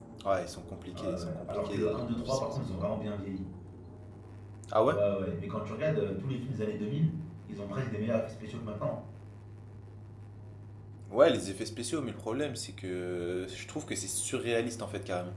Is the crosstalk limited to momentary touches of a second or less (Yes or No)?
No